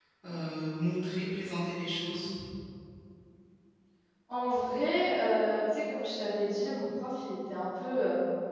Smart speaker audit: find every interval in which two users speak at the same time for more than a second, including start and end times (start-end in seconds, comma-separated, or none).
none